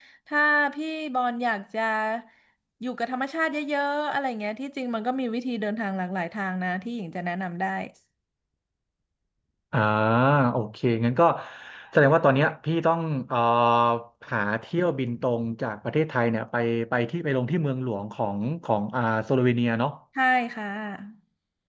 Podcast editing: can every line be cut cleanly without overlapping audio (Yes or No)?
Yes